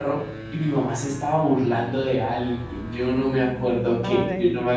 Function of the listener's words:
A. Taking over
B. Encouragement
B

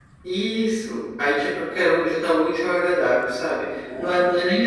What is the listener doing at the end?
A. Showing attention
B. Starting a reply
A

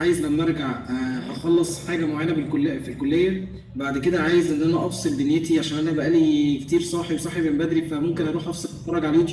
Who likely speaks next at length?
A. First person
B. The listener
A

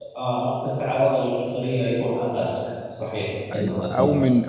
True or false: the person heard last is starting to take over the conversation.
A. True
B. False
A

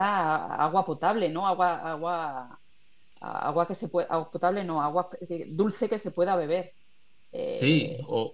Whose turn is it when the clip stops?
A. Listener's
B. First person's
A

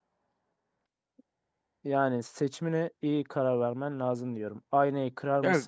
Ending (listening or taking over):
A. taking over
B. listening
B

